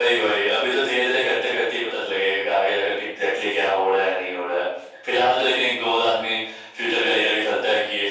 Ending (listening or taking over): listening